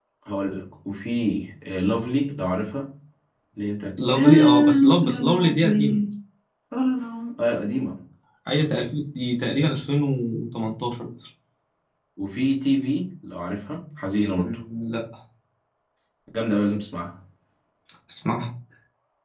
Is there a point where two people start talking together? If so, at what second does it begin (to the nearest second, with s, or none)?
4 s